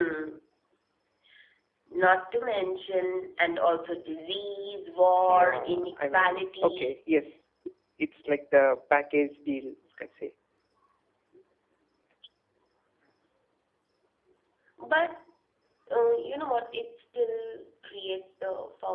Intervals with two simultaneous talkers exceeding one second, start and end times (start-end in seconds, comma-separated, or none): 5.3-7.0